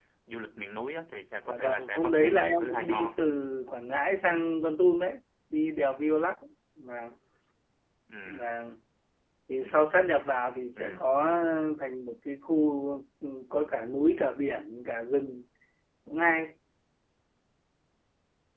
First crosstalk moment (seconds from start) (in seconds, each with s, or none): 1.4 s